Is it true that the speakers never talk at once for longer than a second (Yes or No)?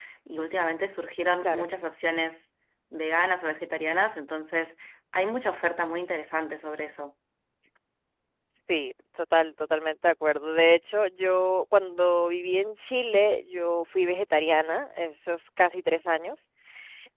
Yes